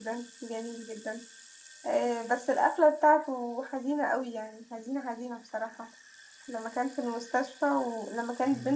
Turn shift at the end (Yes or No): No